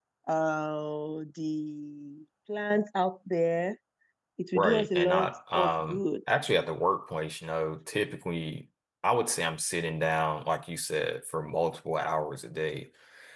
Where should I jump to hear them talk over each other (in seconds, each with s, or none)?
4.5 s